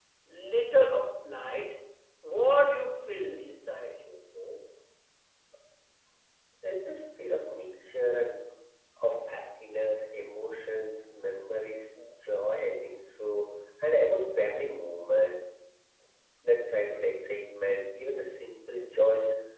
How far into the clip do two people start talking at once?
none

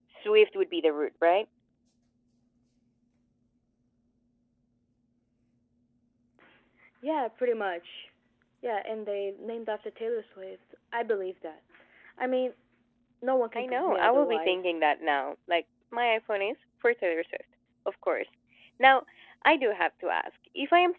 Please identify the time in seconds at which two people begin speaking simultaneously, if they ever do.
13.6 s

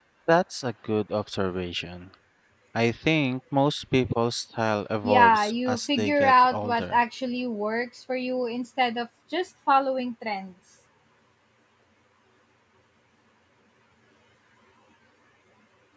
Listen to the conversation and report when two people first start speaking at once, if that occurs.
5.0 s

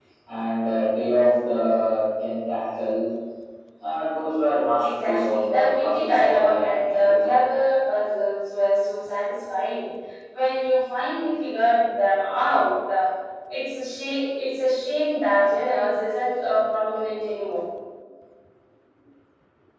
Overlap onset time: 4.8 s

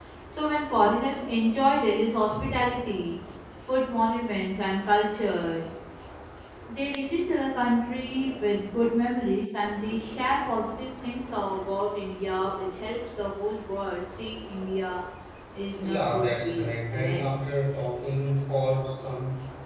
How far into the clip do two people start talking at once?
15.8 s

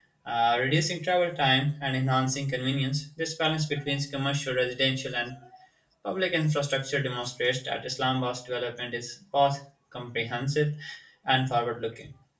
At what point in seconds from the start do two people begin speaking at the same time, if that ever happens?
none

